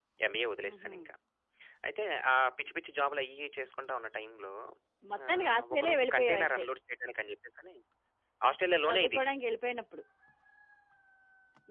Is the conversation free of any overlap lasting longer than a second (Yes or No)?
No